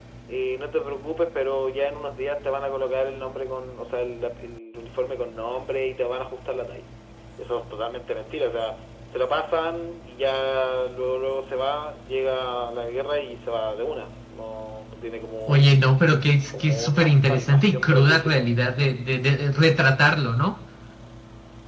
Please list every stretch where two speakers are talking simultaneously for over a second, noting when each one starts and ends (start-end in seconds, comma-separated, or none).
16.6-18.5